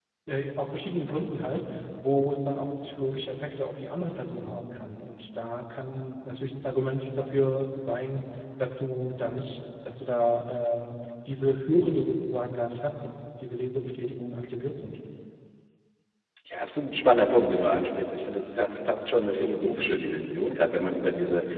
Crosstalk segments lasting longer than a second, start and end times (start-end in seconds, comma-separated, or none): none